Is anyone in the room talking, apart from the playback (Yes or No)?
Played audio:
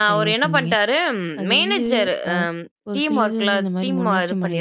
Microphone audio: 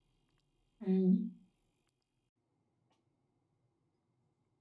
Yes